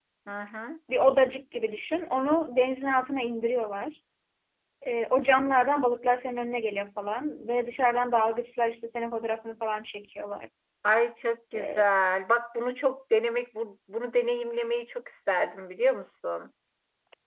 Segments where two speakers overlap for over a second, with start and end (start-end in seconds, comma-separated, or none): none